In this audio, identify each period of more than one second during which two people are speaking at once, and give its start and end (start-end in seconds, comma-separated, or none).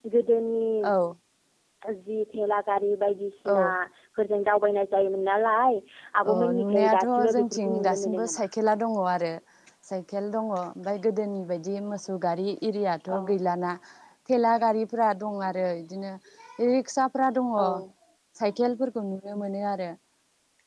6.3-8.4